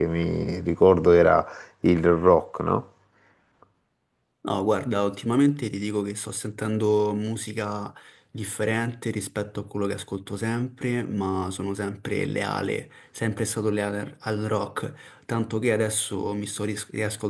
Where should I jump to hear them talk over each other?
none

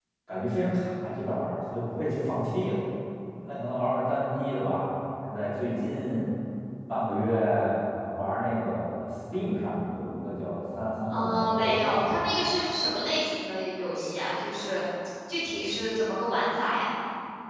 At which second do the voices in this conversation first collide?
11 s

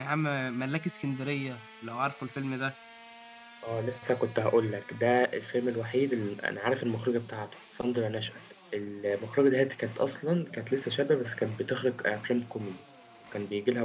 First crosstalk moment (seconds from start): none

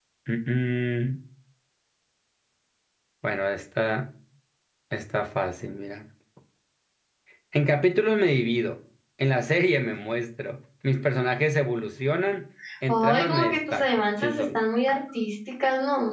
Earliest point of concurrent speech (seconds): 13 s

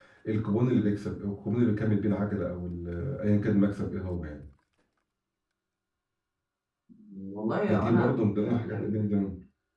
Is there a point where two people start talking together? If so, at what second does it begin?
8 s

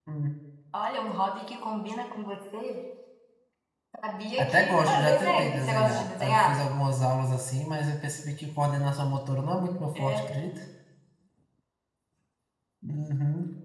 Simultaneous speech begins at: 4 s

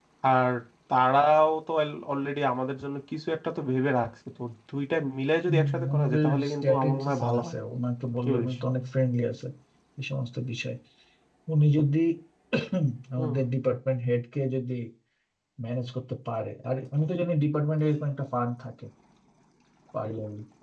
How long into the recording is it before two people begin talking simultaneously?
5 s

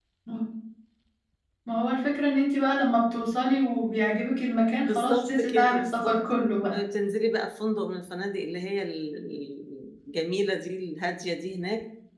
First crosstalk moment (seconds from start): 5 s

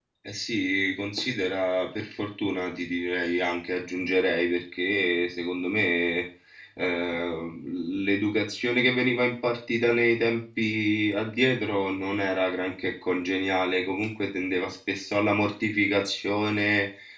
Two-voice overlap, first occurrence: none

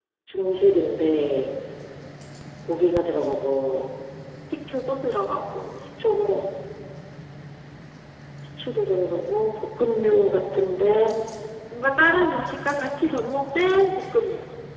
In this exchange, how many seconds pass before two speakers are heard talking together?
none

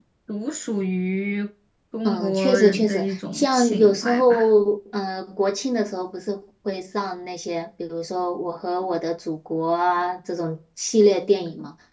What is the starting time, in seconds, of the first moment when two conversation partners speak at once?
2 s

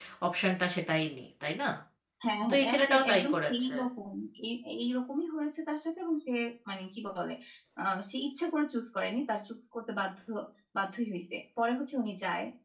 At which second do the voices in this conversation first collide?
2 s

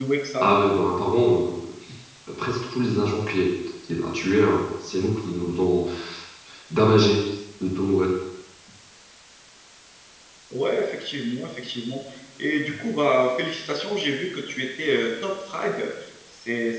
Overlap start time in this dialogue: none

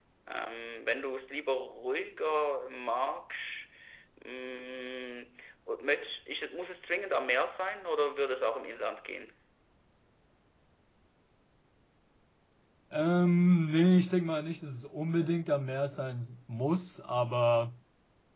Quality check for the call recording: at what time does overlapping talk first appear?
none

